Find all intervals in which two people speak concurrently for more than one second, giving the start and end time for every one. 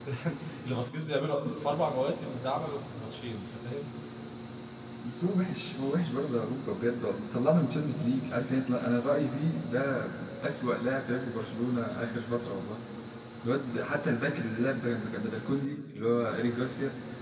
none

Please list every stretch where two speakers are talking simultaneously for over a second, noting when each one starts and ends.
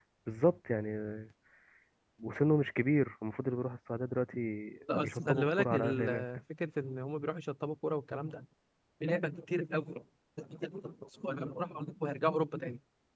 5.0-6.2

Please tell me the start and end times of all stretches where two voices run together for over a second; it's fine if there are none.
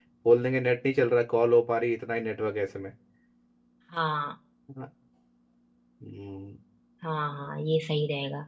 none

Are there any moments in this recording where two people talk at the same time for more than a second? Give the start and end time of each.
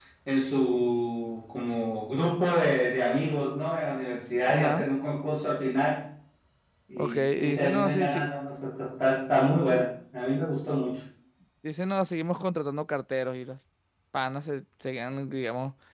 7.0-8.3

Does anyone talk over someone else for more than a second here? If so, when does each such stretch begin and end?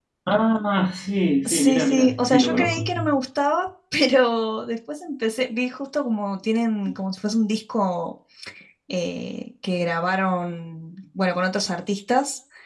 1.4-3.0

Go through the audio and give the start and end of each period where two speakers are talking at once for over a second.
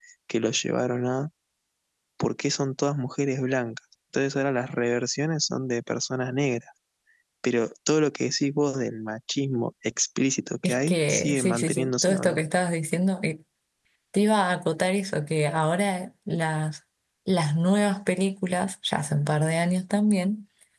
10.6-12.4

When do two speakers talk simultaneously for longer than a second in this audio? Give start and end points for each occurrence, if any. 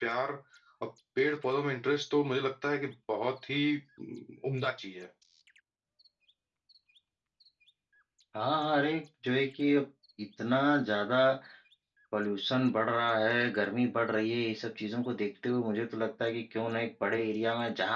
none

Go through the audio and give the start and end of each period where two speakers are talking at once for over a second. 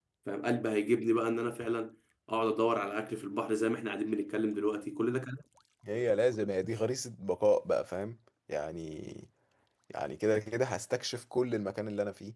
none

